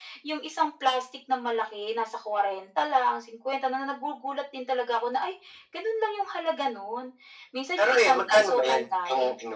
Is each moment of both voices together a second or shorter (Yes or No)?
No